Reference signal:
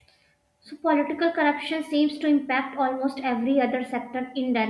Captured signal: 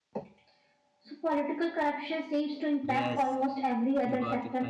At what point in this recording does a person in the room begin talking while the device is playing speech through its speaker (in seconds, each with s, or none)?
2.9 s